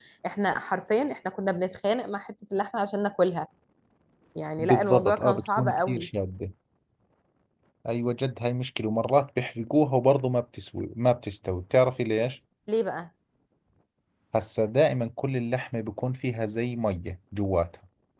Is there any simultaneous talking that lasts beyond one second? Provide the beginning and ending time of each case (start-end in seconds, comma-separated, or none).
4.6-6.1